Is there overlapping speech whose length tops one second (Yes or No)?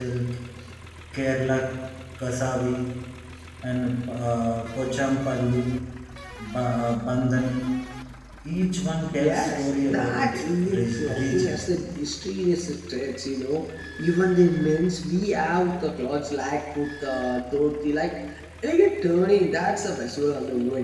Yes